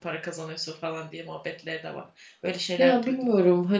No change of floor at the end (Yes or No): No